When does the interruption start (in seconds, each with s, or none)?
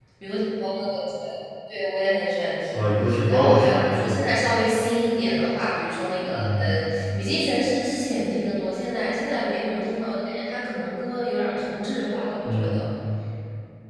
2.7 s